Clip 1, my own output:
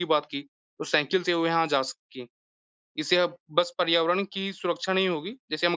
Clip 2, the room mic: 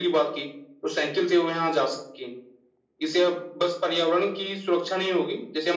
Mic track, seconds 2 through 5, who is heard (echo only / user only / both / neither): echo only